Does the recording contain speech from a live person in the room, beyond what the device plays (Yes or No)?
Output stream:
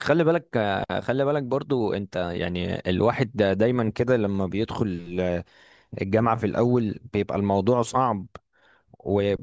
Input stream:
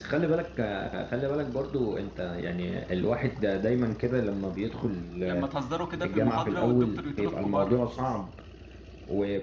Yes